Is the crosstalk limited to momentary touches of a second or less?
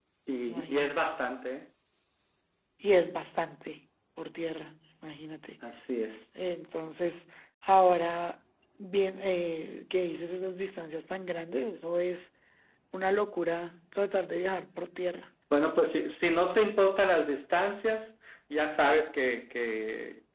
Yes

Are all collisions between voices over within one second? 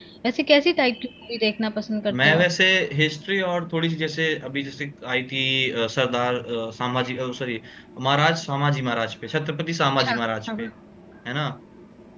Yes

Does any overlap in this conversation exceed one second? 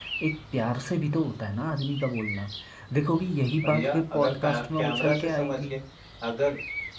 Yes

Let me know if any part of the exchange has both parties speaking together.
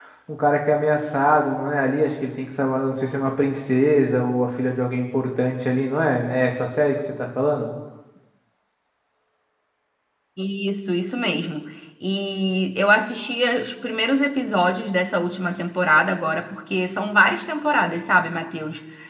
No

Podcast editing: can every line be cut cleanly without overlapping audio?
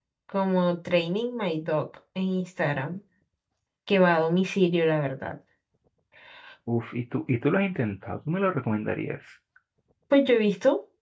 Yes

